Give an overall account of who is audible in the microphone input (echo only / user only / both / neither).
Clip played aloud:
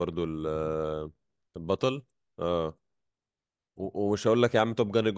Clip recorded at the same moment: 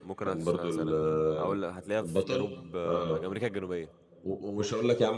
both